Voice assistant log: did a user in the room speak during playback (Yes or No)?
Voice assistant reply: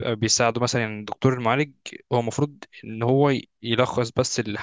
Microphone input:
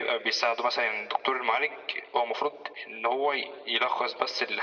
No